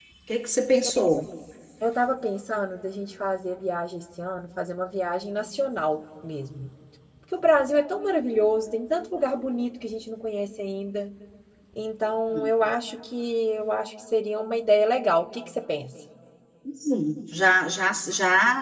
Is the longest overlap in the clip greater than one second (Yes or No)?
No